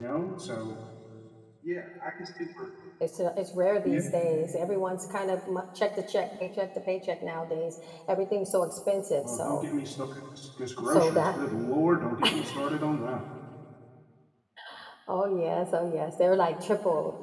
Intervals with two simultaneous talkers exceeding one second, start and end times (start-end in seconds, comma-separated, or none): none